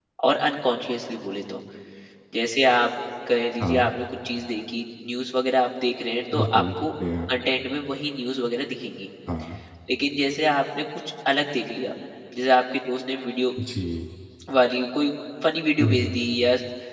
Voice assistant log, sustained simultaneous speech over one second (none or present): none